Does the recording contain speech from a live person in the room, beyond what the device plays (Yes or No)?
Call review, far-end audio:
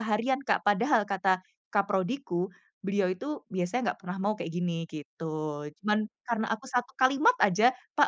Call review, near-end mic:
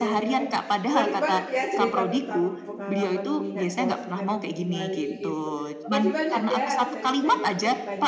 Yes